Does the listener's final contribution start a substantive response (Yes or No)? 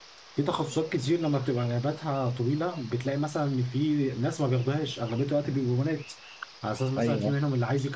No